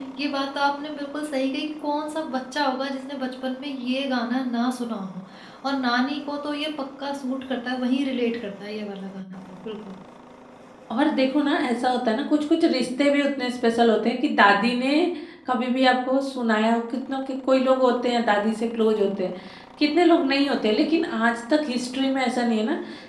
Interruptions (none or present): none